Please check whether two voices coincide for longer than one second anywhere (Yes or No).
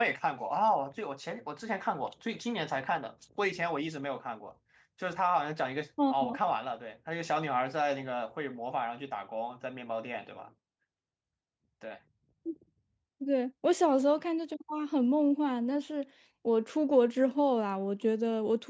No